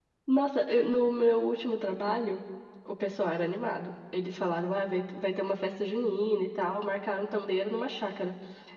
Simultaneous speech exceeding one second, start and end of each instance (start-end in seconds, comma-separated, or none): none